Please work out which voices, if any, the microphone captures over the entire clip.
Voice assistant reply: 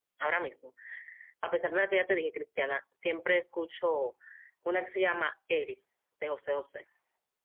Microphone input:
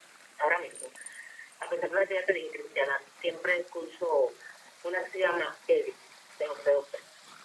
echo only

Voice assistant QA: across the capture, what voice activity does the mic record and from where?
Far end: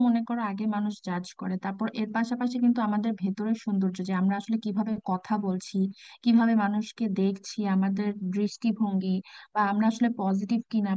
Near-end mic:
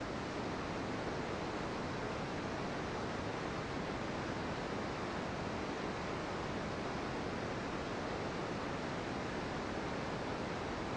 neither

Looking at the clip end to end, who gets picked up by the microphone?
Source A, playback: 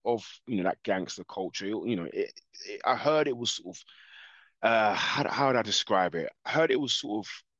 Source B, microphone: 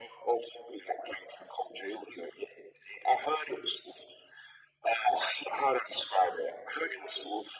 echo only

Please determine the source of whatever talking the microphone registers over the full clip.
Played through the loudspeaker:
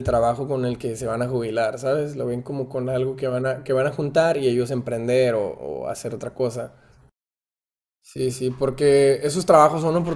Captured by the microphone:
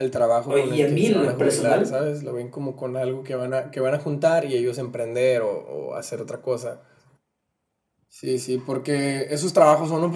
both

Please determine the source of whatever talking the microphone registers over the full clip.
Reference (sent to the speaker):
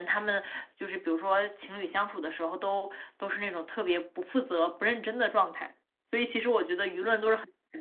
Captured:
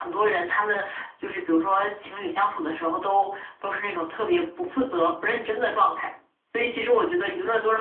echo only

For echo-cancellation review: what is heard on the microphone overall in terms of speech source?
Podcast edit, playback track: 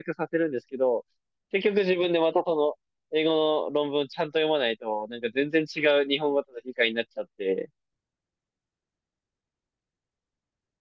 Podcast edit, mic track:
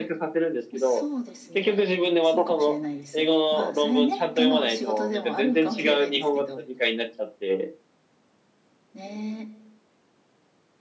both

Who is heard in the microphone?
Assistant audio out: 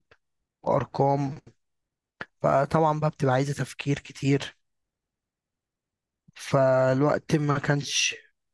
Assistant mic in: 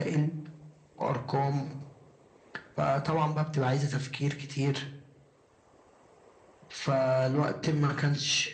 echo only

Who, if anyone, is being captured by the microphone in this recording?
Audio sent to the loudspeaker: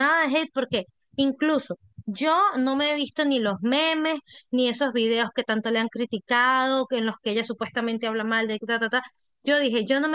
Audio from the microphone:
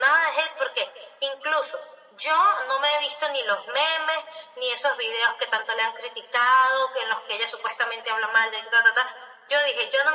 echo only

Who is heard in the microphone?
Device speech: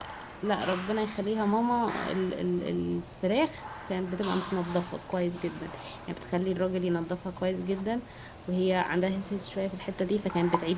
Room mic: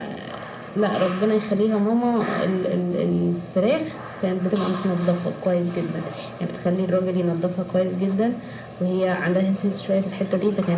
echo only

